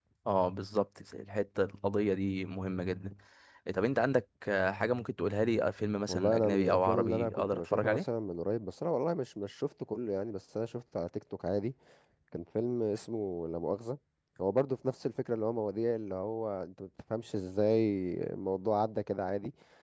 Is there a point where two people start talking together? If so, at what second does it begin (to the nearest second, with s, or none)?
6 s